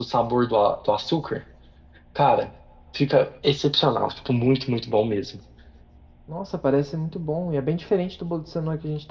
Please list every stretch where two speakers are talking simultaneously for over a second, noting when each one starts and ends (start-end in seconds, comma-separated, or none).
none